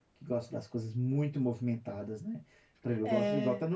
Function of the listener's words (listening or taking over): listening